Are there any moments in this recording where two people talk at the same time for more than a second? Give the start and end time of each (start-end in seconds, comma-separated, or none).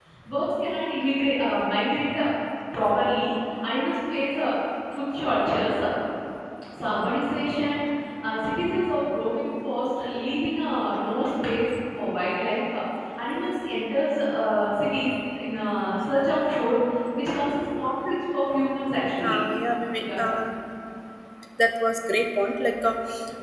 none